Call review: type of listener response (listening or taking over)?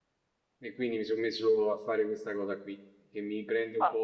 listening